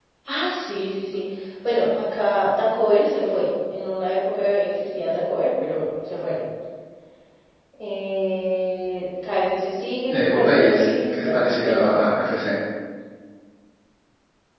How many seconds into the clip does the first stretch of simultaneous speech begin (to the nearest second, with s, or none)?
10 s